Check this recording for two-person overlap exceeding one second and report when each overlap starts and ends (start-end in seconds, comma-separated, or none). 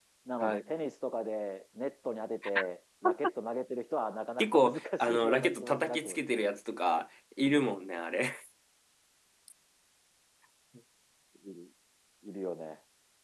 4.4-6.2